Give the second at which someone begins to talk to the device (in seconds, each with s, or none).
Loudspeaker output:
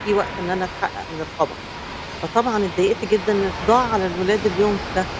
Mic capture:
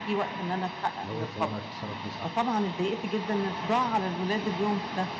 1.0 s